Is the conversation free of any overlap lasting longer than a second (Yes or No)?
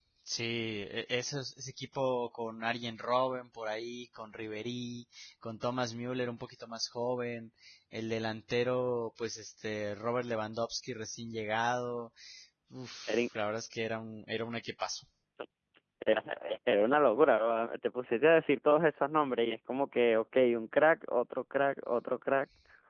Yes